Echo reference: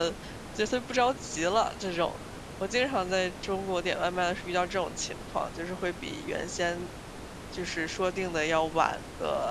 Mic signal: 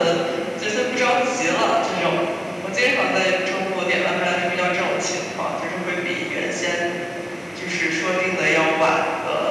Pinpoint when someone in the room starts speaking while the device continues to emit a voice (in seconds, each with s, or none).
none